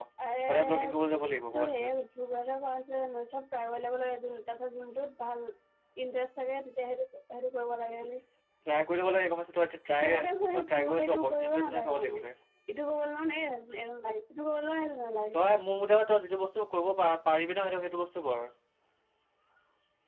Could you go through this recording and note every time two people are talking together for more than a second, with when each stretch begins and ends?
10.5-12.2

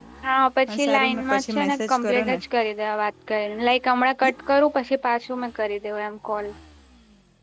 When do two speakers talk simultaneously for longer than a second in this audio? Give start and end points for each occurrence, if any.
0.7-2.4

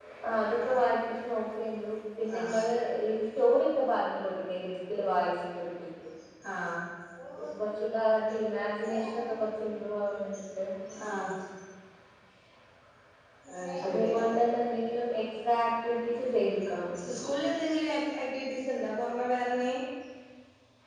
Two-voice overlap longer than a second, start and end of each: none

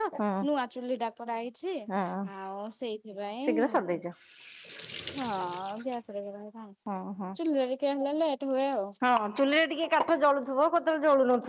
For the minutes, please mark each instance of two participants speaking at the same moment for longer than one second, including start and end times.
none

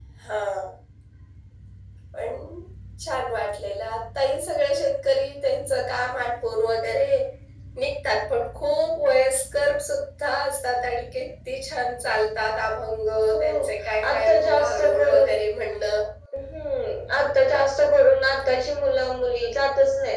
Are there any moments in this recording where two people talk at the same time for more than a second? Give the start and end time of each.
14.1-15.3

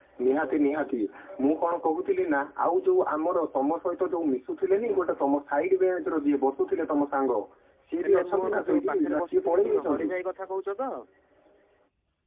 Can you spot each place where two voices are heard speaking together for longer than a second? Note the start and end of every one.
8.0-10.1

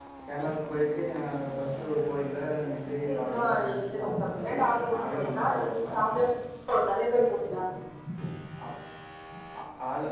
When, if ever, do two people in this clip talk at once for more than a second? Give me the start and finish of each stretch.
3.1-5.9

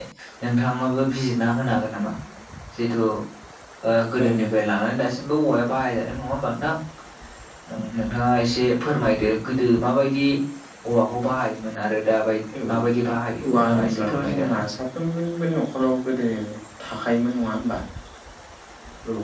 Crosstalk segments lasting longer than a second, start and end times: 13.4-14.6

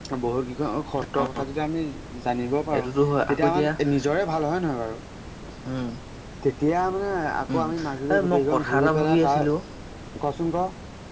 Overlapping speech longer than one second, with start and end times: 8.1-9.5

